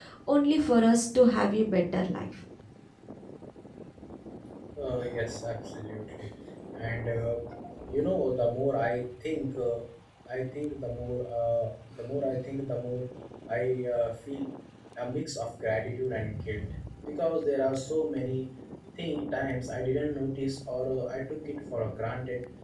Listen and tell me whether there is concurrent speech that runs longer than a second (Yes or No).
No